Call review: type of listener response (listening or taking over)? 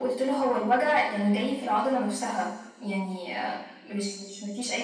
listening